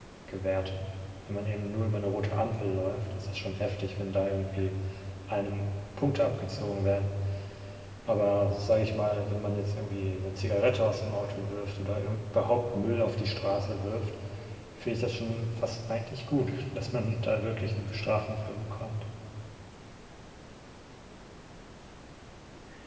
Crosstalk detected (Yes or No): No